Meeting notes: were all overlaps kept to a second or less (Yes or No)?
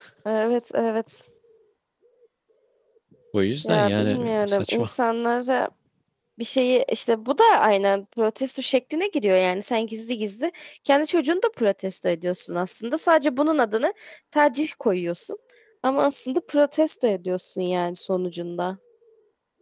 No